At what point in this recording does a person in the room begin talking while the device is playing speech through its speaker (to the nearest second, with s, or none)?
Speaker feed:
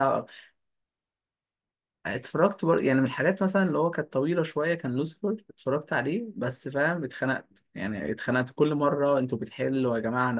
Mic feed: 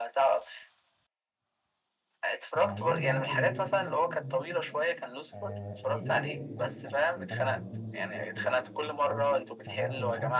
3 s